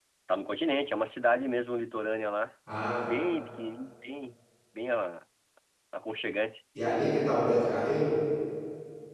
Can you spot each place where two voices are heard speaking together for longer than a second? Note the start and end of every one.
none

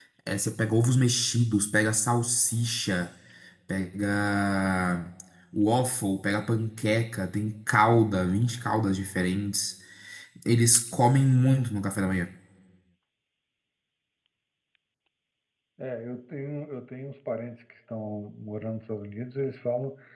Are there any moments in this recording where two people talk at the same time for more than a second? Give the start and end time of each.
none

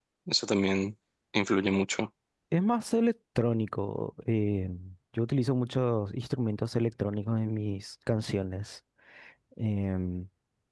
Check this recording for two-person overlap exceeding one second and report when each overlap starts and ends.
none

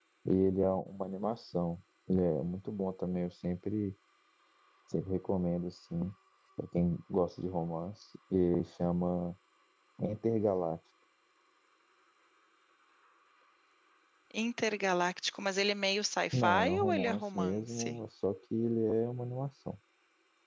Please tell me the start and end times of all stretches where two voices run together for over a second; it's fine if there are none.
16.3-18.0

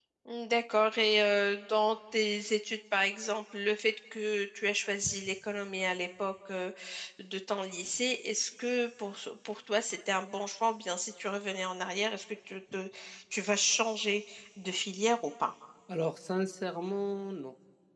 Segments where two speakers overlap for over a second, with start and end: none

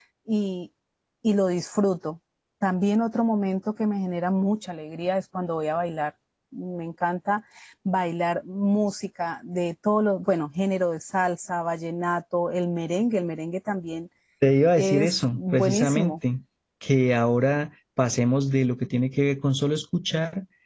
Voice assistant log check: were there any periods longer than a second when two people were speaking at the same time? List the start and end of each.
14.8-16.1

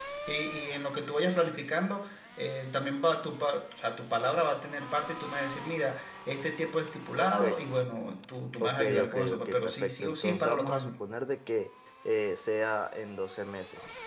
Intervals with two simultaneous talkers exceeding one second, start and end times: 8.6-11.0

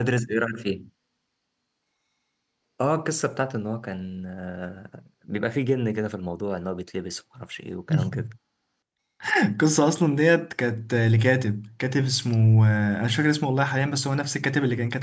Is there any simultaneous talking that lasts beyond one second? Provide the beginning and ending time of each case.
none

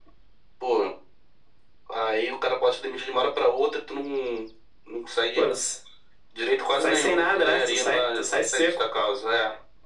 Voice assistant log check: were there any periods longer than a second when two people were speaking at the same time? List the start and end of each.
6.8-8.0

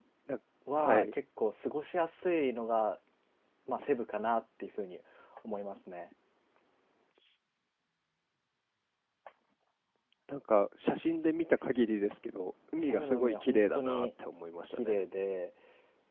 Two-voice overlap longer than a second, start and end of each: 12.8-14.1

